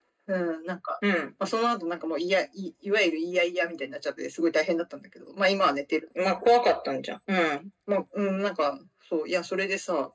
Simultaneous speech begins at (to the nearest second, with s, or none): none